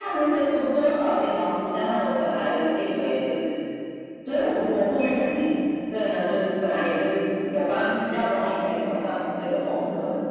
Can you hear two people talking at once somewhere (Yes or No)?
No